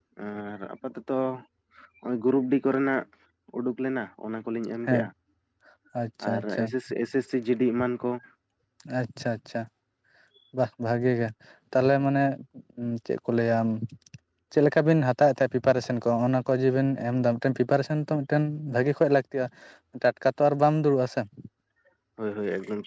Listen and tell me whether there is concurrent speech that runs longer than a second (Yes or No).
No